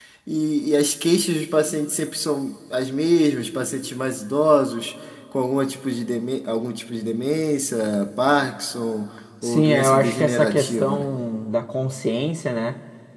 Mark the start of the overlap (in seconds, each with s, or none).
9.4 s